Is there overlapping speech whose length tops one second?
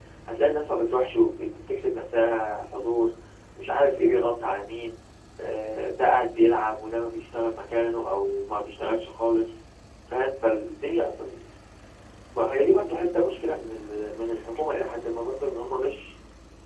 No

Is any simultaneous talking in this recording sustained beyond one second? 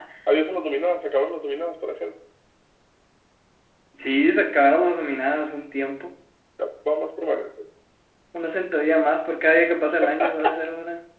No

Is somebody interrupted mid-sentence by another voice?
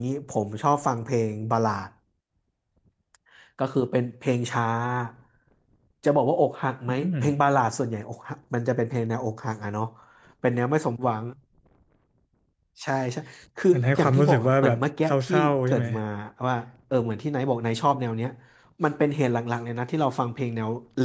Yes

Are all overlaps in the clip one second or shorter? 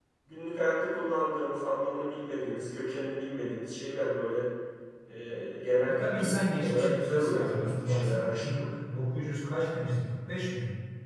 No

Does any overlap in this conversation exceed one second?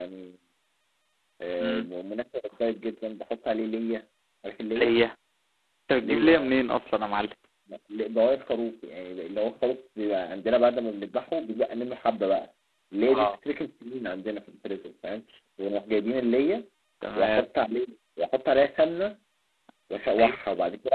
No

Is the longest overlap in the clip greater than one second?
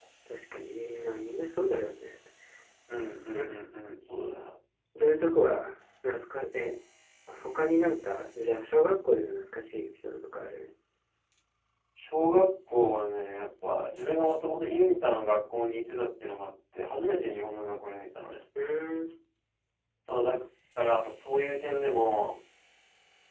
No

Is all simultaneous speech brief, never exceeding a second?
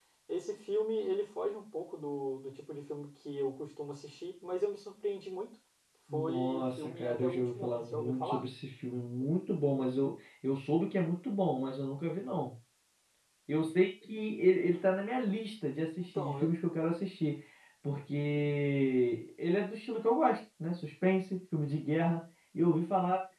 No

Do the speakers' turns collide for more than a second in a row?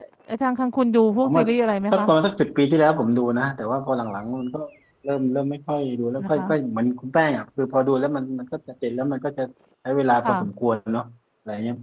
No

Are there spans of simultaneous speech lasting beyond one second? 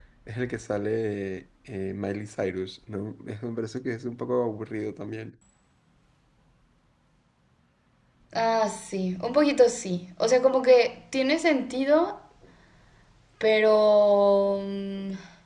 No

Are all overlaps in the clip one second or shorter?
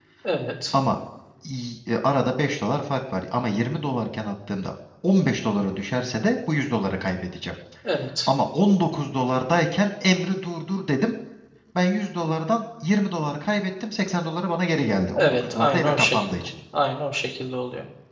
No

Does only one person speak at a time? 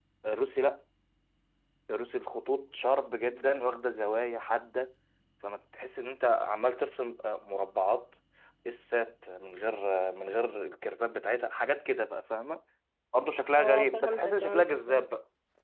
No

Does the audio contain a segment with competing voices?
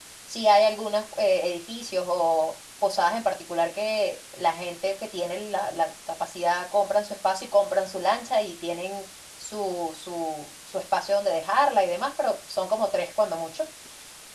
No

